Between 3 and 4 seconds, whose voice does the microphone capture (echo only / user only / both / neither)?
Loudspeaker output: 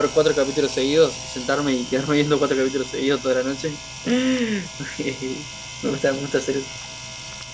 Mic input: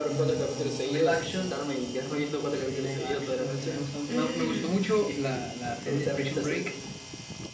both